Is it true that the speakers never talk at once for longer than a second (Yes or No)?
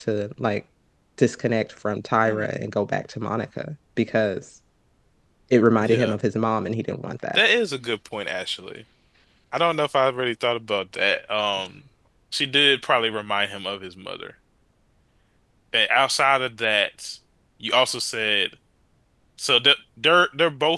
Yes